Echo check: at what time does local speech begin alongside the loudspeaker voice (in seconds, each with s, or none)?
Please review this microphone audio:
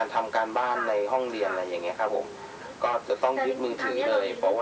none